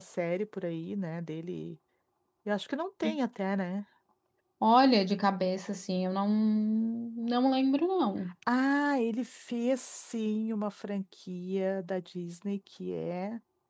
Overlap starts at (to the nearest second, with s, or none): none